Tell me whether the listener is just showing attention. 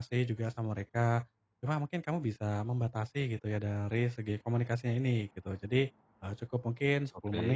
Yes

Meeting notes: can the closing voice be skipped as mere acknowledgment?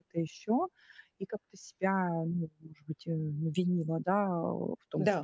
Yes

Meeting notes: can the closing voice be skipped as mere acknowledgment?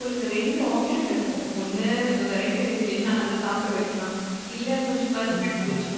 Yes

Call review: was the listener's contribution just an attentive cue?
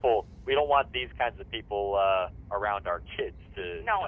No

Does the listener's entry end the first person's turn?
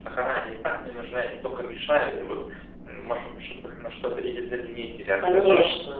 Yes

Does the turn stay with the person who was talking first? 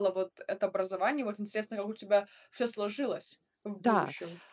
No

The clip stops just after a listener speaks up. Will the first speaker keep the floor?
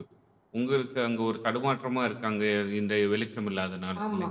No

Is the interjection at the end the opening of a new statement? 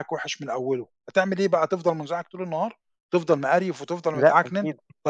No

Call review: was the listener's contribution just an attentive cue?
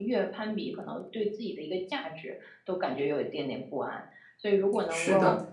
Yes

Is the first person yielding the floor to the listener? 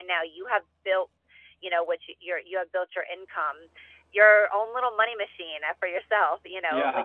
No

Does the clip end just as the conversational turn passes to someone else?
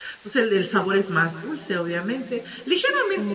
No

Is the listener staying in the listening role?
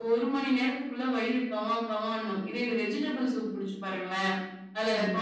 Yes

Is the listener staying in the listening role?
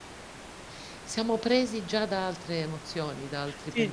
No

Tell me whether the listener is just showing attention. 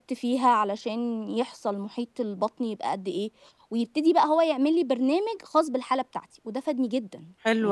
No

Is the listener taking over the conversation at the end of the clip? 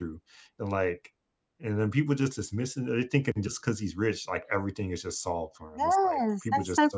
Yes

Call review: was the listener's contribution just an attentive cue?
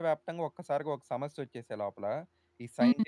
Yes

